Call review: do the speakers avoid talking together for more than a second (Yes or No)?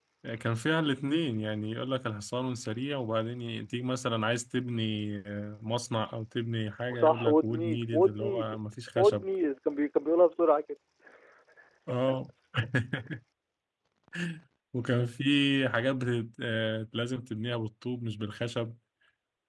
No